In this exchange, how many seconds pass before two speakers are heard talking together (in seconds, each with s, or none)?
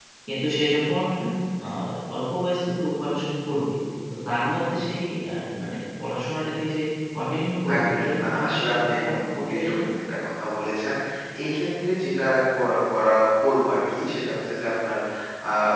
7.7 s